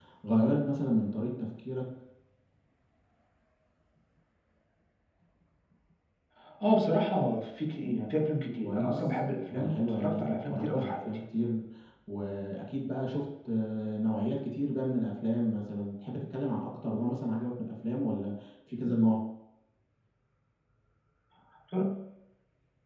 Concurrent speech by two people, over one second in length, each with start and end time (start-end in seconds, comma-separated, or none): 8.6-11.0